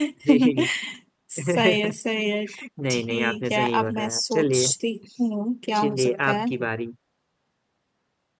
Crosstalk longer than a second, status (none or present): present